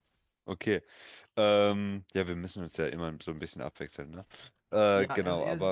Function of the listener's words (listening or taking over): taking over